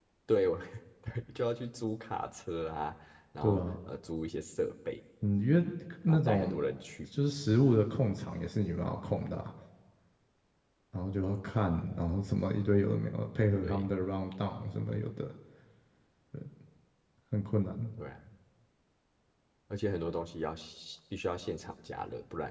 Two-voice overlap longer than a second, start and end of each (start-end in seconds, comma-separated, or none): none